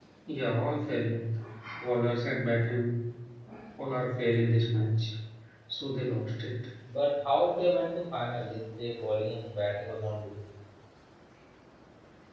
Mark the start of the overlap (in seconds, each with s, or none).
none